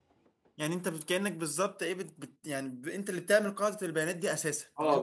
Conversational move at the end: taking over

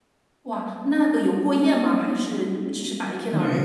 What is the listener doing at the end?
taking over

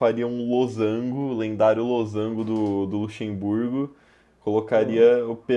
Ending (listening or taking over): listening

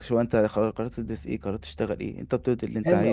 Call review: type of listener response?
taking over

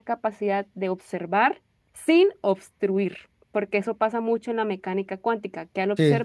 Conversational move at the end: taking over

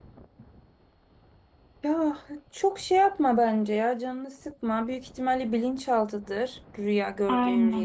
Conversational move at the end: taking over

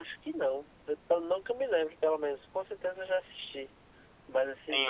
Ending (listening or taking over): taking over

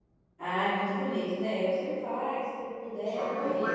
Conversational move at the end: taking over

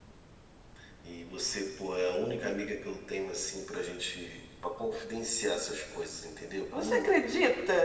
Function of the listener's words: taking over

